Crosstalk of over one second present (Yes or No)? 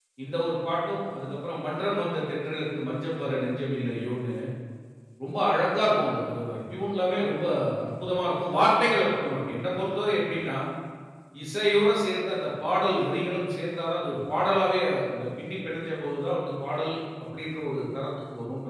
No